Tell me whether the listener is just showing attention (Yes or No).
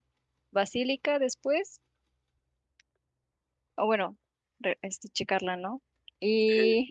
No